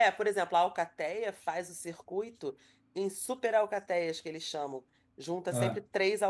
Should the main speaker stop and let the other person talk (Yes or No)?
No